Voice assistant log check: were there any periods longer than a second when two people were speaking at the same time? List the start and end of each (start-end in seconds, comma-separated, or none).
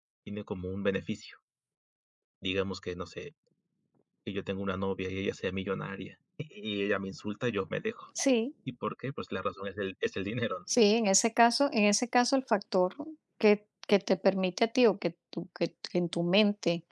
none